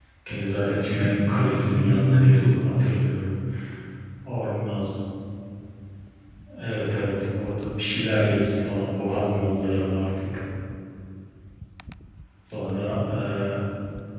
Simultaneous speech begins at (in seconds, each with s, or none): 0.9 s